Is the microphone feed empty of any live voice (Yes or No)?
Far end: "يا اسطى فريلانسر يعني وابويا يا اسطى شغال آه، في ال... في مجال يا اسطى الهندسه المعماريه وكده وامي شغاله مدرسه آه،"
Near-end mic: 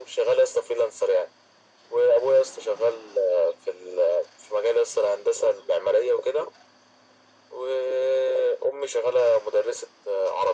Yes